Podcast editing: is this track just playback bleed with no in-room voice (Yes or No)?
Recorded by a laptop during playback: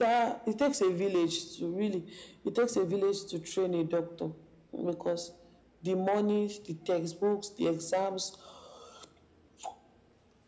Yes